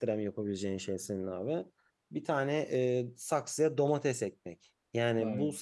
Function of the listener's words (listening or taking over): listening